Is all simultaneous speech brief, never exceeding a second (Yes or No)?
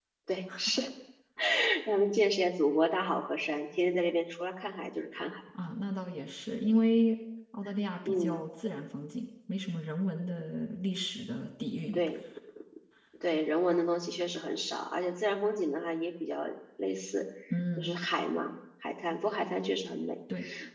Yes